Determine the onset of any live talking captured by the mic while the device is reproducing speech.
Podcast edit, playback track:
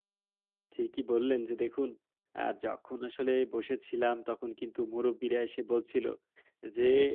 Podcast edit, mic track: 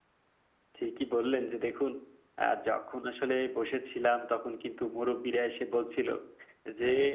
none

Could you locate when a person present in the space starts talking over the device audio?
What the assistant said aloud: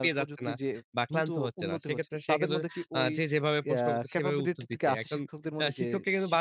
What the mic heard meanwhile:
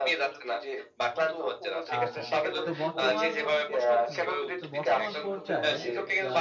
1.9 s

